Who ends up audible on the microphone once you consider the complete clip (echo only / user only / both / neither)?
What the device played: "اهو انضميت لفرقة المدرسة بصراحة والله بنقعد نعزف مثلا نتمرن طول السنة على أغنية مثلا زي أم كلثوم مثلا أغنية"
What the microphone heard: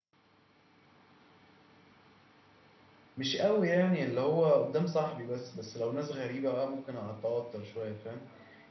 user only